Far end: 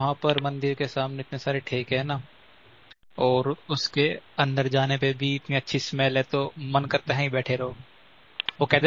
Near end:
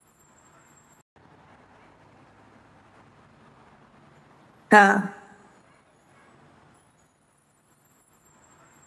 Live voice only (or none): हाँ